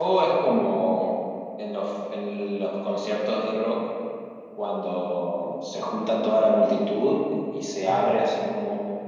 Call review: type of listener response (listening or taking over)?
listening